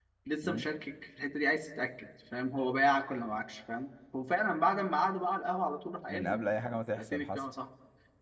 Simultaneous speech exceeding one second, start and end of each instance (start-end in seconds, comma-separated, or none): 6.1-7.4